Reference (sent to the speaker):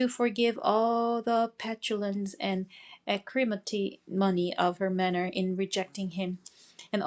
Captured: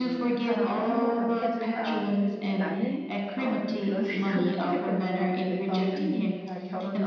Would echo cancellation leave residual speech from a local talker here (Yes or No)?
Yes